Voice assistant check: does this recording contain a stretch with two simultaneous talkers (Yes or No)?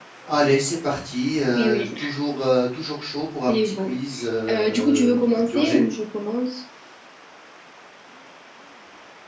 Yes